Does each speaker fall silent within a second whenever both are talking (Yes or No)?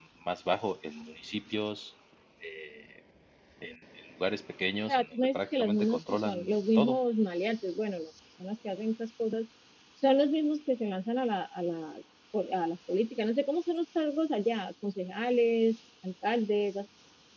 No